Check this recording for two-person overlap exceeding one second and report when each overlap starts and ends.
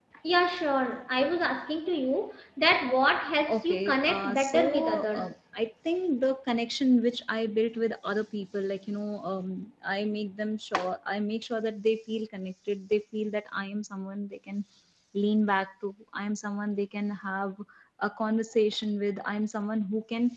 3.6-5.3

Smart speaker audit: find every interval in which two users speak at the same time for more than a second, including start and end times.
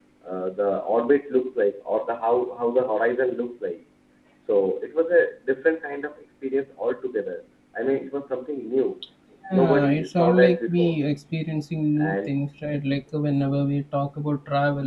9.5-11.0

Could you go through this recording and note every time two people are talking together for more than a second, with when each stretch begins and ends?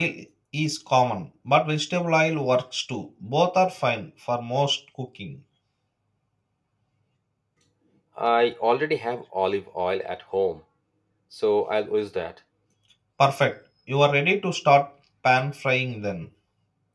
none

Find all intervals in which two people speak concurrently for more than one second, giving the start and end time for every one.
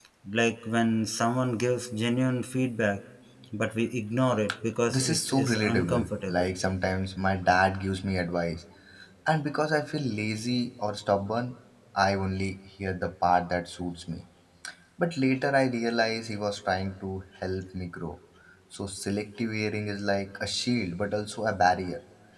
5.0-6.5

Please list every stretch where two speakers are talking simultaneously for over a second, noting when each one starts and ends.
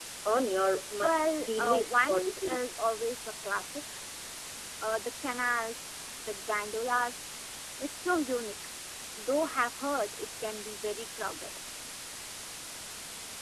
1.0-2.6

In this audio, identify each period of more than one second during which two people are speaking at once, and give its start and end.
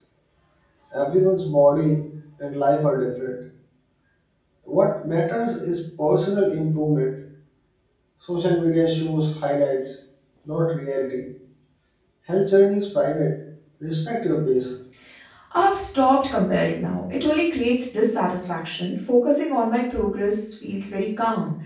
none

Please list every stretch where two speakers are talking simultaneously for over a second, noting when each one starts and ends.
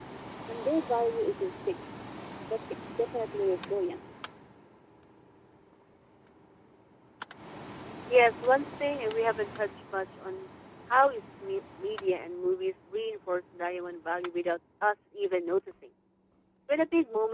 none

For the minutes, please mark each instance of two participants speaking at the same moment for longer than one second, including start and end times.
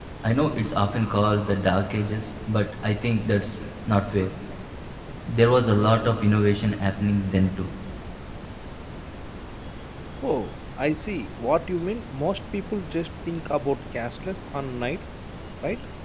none

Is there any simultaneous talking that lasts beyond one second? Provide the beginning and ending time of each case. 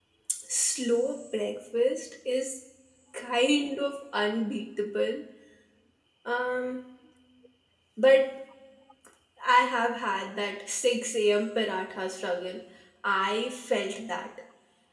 none

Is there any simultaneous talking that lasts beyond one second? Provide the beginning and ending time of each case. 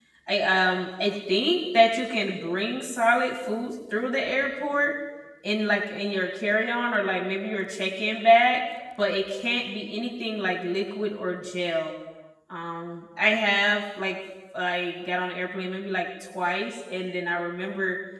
none

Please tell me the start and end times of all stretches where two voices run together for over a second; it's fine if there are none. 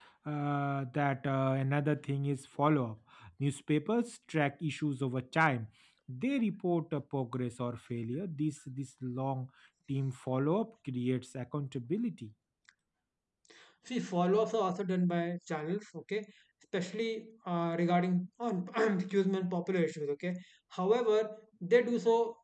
none

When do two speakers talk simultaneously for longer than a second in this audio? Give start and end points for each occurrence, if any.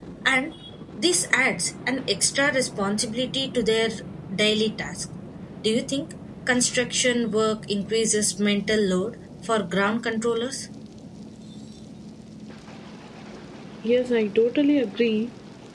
none

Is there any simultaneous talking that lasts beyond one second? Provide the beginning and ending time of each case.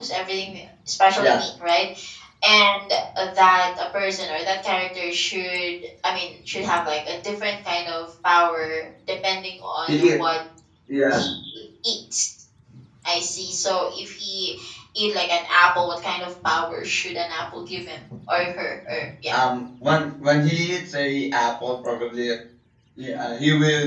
none

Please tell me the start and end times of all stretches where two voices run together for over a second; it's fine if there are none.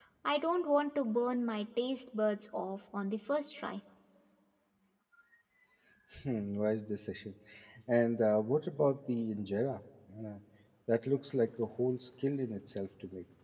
none

